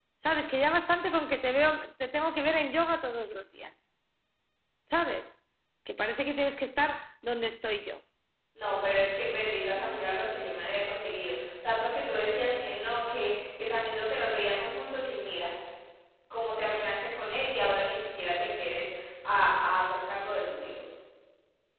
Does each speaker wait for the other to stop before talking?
Yes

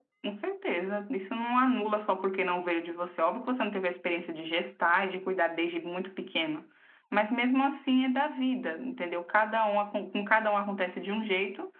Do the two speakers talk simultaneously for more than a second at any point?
No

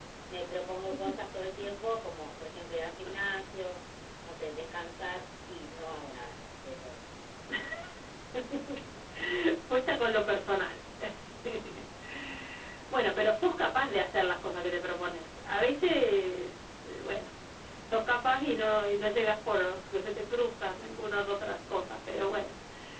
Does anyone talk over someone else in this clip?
No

